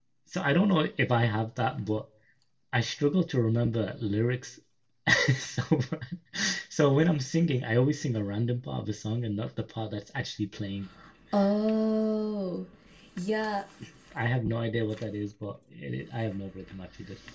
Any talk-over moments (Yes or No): No